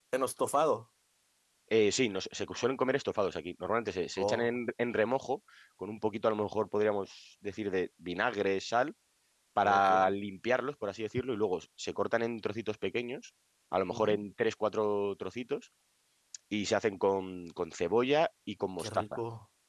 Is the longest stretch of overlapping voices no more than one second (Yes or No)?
Yes